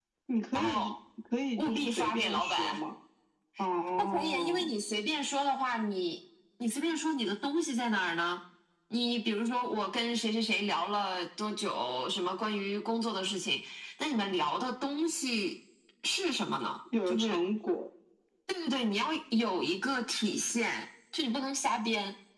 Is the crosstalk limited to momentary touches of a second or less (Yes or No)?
No